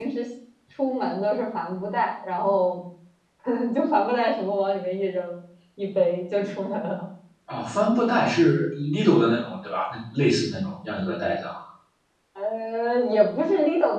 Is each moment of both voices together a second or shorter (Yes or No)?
Yes